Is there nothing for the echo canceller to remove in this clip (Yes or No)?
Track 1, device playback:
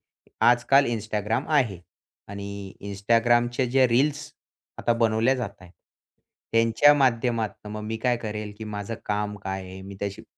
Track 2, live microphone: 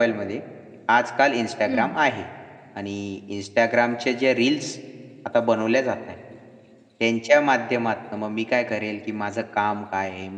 No